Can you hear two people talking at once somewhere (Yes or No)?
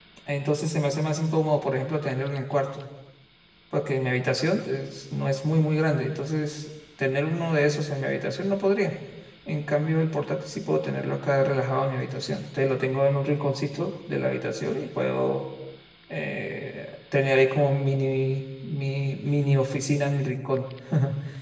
No